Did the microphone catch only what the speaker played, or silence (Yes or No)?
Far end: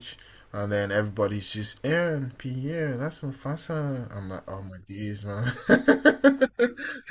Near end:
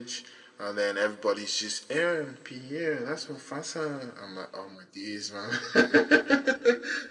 Yes